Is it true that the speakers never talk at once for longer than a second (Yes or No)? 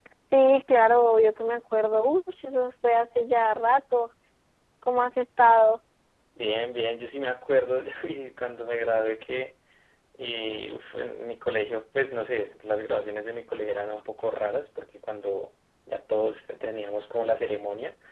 Yes